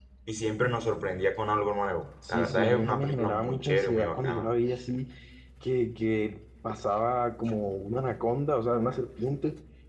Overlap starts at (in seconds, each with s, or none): 2.3 s